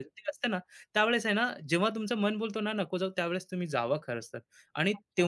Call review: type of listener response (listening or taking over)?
taking over